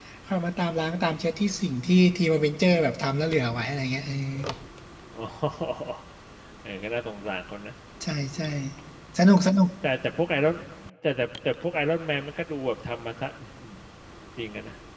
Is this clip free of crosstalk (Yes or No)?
Yes